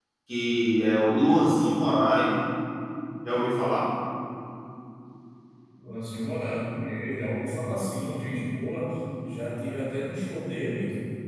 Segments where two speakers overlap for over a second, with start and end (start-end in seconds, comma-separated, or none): none